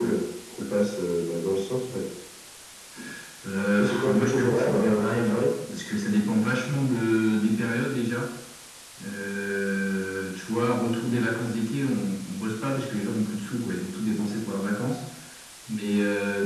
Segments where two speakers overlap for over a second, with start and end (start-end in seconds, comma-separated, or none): 3.8-5.5